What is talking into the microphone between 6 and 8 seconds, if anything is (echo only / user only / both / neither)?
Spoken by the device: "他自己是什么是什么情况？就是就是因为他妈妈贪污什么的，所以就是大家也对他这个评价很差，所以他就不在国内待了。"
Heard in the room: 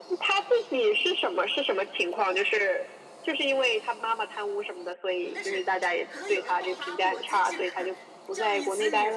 both